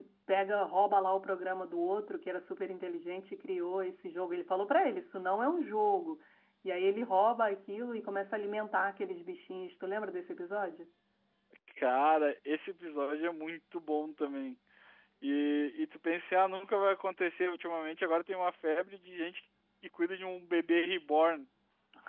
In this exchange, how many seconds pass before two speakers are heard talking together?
none

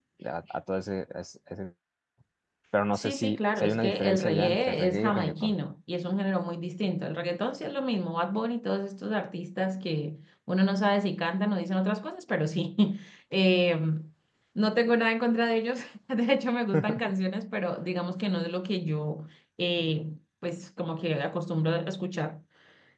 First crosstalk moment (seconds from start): 3.0 s

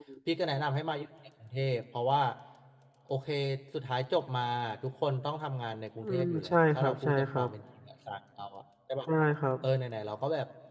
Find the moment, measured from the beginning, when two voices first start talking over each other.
6.0 s

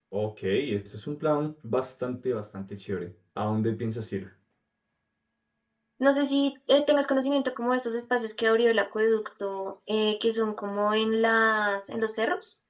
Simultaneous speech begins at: none

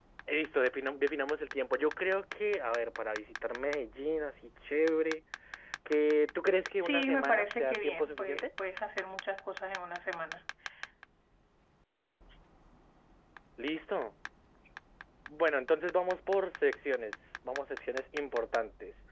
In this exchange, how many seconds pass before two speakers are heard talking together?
6.8 s

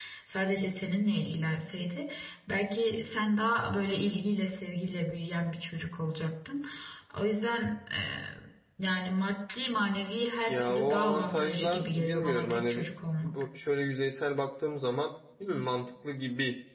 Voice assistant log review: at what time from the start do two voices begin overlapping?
10.5 s

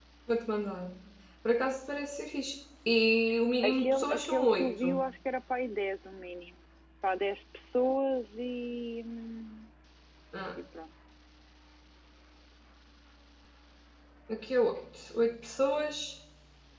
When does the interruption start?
3.6 s

